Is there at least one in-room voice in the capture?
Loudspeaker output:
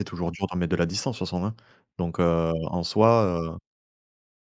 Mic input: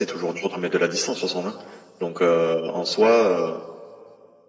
No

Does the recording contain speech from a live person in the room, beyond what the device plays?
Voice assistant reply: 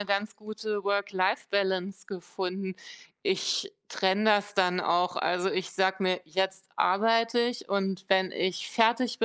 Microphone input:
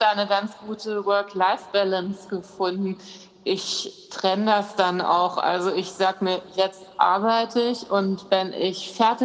No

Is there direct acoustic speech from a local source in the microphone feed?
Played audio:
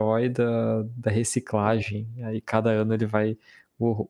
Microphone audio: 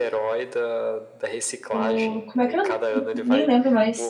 Yes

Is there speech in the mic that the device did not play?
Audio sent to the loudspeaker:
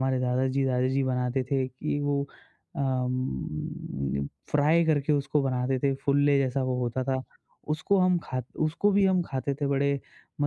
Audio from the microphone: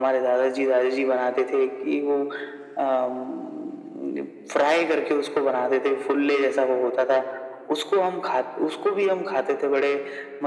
No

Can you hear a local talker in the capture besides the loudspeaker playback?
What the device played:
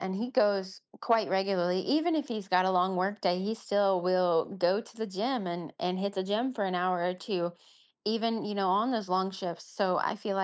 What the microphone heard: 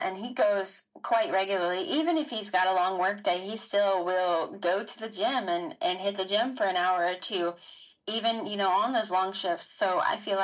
No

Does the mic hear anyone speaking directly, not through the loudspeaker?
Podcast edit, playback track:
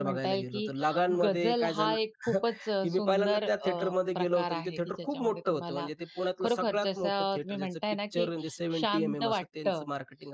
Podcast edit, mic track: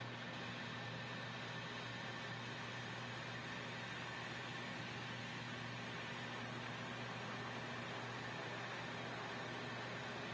No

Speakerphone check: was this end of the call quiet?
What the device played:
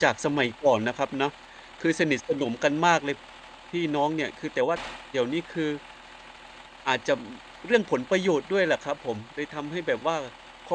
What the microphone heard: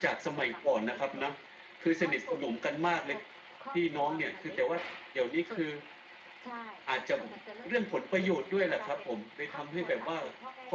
No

